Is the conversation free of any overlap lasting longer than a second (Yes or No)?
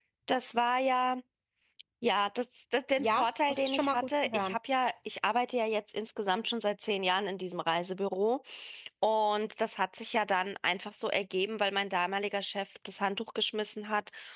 No